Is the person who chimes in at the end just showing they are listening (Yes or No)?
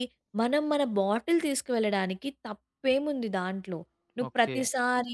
Yes